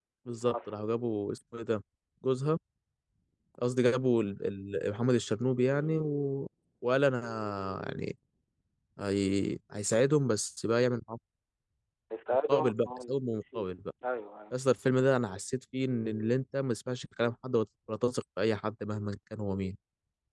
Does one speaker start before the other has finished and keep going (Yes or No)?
Yes